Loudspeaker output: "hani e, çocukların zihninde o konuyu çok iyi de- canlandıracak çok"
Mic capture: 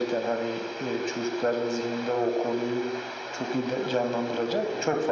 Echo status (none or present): present